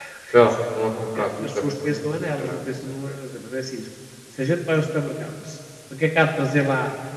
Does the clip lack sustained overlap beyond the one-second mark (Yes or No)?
No